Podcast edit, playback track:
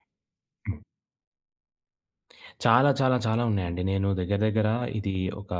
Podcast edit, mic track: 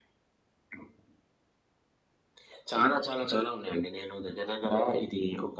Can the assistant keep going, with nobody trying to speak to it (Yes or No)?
Yes